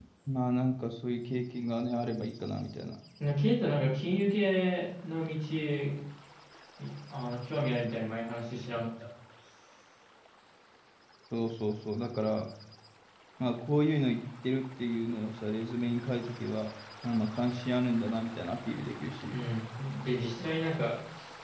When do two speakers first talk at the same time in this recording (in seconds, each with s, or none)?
none